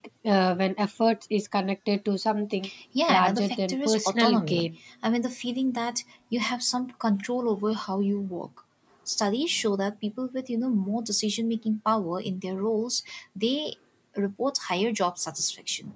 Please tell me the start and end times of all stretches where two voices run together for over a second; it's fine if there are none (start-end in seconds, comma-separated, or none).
3.1-4.7